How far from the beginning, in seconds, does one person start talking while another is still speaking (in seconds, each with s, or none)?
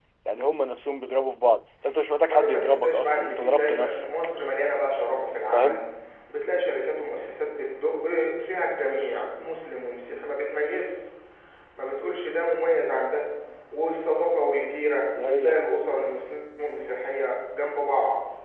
2.2 s